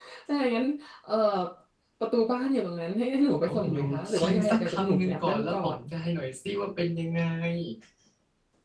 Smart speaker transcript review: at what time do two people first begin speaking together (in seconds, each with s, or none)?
3.5 s